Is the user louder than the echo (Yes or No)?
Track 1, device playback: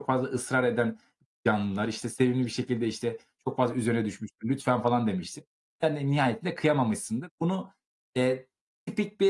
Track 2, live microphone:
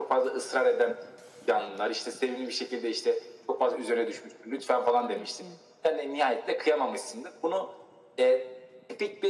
No